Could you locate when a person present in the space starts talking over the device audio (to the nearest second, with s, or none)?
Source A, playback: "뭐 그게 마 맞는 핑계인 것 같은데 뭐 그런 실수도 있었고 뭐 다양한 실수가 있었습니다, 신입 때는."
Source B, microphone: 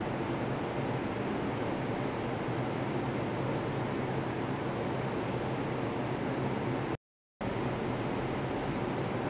none